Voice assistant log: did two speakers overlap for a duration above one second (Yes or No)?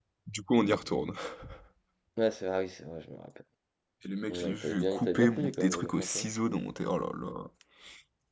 Yes